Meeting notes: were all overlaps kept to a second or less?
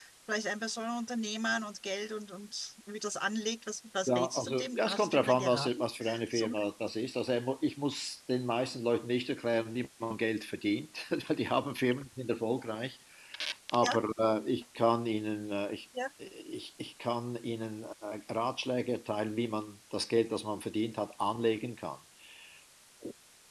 No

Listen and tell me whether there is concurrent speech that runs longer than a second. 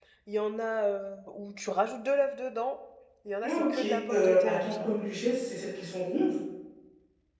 Yes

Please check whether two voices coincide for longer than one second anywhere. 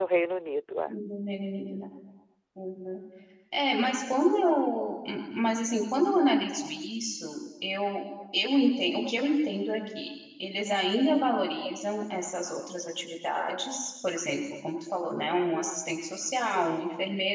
No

